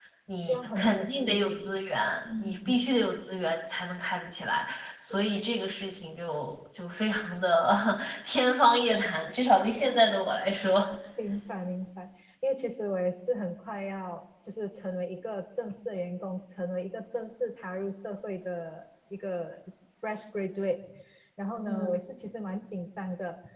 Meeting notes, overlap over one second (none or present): present